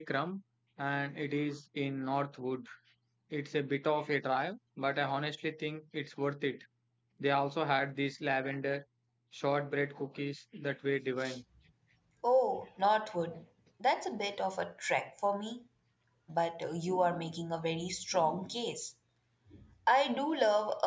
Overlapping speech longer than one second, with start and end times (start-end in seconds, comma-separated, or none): none